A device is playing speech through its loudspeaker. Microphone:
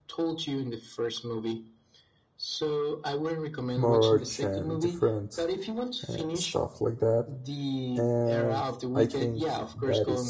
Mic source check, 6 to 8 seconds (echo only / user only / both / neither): both